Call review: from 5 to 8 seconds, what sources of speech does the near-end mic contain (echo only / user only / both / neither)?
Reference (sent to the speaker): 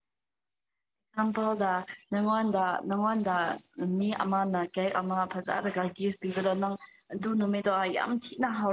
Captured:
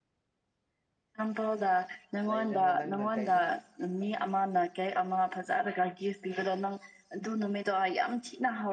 echo only